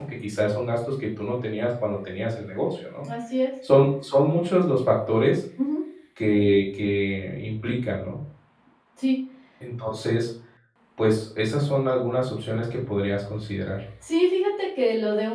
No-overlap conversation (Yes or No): Yes